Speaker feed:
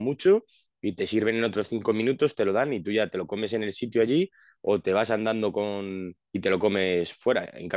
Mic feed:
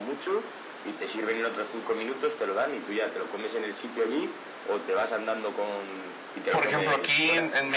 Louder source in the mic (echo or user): user